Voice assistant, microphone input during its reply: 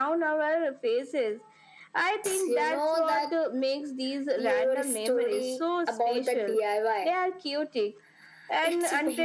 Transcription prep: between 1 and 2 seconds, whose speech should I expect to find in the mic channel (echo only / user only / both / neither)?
echo only